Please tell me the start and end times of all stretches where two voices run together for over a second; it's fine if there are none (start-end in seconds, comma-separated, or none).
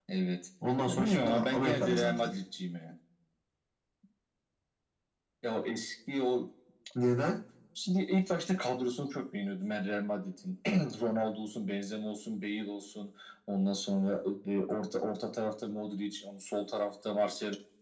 0.9-2.3